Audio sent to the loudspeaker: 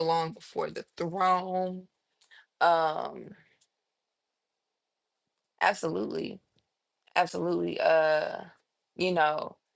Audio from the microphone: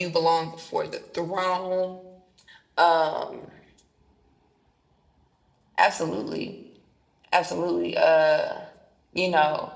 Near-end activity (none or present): none